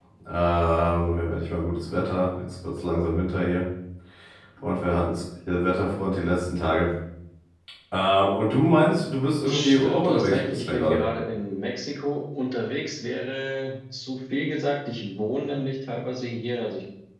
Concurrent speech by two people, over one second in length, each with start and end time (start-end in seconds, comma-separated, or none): 9.4-11.0